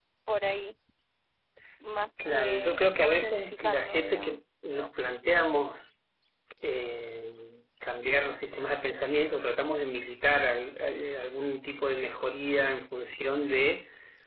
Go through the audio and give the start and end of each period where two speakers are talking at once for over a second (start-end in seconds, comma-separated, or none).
2.3-4.4